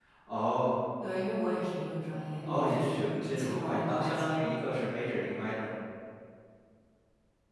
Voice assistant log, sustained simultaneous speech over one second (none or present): present